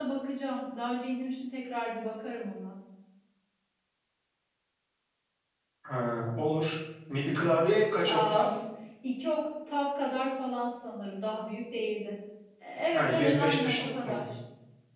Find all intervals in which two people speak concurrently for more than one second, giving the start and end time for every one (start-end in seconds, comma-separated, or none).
12.9-14.2